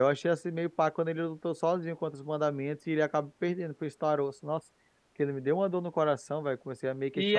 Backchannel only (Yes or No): No